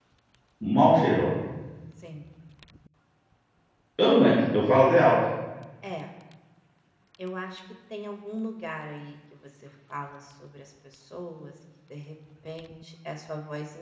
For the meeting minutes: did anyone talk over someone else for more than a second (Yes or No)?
No